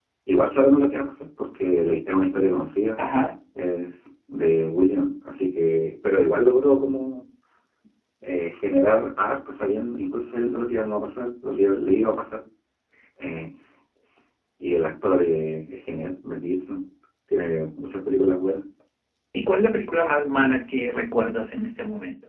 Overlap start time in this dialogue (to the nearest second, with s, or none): none